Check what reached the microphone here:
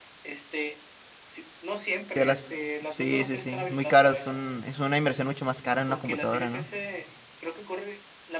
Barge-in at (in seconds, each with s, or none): 2.1 s